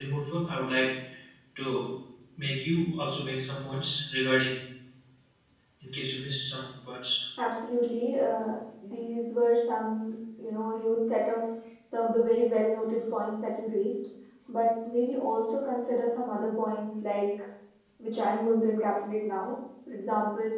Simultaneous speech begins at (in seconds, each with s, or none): none